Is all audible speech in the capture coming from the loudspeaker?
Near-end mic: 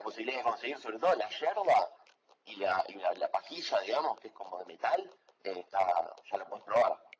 Yes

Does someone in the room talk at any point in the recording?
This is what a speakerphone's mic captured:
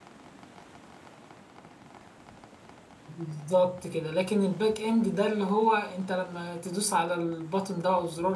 Yes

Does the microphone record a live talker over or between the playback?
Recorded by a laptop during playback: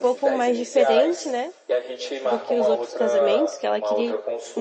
Yes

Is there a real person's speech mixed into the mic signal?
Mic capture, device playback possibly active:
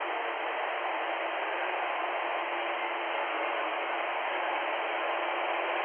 No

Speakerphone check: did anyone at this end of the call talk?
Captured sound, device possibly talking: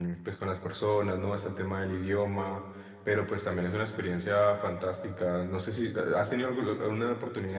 Yes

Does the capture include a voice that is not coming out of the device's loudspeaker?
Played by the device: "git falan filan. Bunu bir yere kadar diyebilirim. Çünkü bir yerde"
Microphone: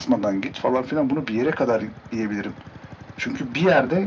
No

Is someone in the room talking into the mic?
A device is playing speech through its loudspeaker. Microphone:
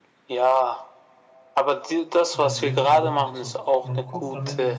Yes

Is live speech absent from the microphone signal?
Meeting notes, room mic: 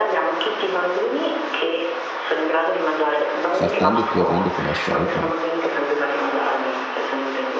No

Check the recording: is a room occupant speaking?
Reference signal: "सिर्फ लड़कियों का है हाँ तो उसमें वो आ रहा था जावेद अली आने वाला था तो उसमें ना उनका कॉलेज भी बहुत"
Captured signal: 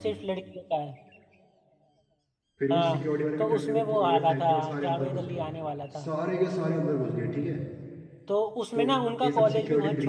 Yes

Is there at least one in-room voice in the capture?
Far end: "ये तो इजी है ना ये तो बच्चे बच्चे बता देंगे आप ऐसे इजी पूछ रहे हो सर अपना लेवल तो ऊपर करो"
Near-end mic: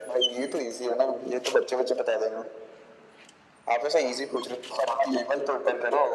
No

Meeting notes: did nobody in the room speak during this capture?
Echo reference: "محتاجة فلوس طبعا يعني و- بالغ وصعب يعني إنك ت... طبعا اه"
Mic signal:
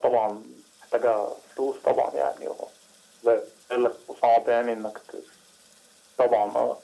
Yes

